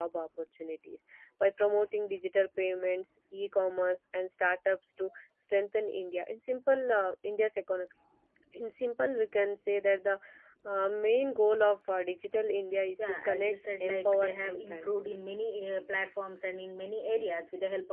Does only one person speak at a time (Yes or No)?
No